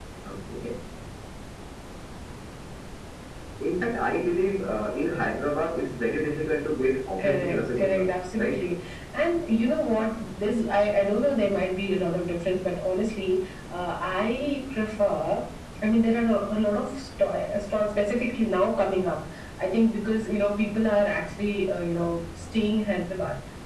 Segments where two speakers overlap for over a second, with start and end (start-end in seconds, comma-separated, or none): 7.2-8.6